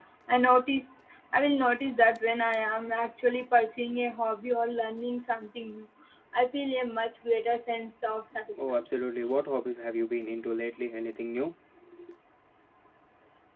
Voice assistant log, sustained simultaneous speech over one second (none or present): none